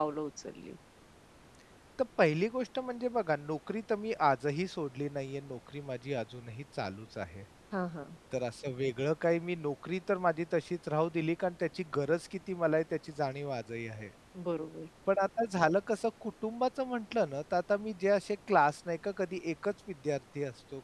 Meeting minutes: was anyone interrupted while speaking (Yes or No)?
No